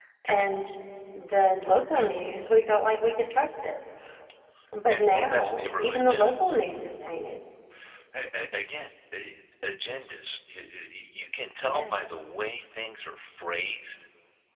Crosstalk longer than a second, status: present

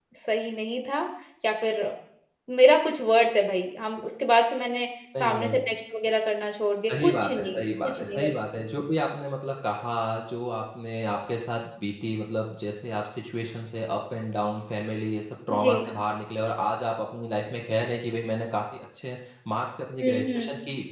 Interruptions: present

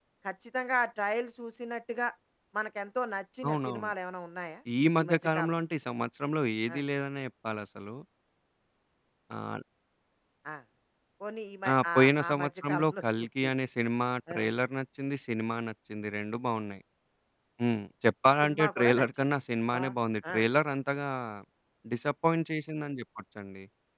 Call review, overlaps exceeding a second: present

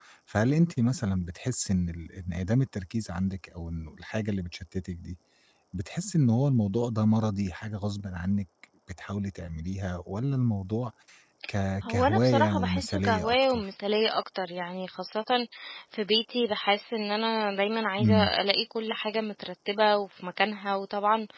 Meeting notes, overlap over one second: present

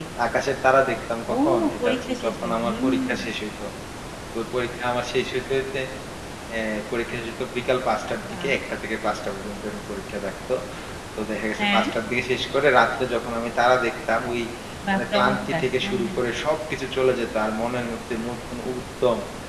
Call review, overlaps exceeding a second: present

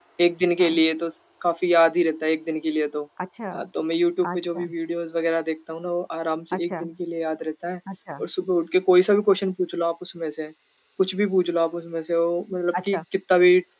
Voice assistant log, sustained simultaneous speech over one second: none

